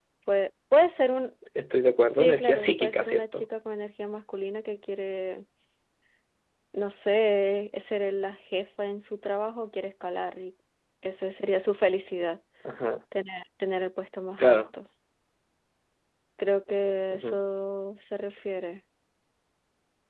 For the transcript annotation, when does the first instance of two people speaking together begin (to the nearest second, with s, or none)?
2 s